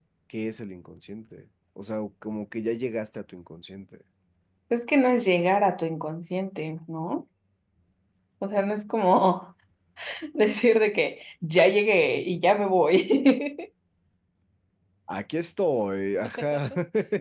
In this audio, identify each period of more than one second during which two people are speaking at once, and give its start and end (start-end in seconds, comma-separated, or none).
none